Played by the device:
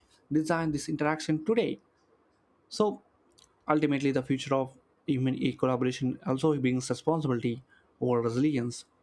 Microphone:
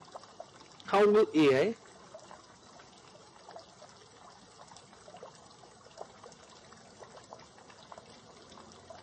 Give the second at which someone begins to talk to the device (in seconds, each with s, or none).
0.9 s